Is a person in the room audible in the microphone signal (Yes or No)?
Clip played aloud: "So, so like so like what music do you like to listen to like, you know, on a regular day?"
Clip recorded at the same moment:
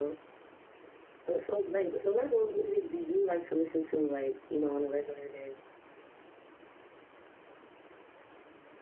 No